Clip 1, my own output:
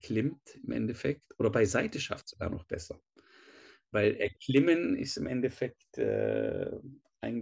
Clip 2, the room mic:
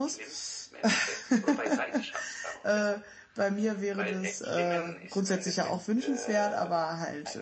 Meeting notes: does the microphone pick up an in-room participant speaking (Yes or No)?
Yes